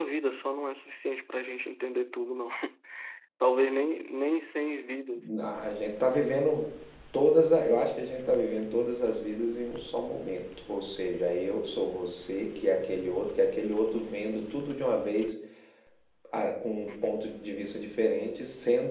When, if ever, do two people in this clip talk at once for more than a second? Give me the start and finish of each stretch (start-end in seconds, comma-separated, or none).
none